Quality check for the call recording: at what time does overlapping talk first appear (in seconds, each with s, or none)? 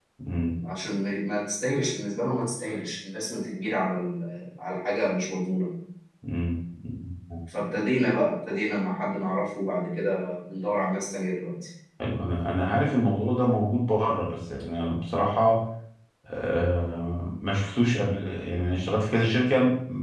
none